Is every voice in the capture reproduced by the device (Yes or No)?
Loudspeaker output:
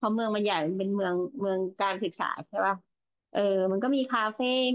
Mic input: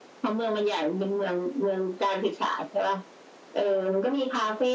Yes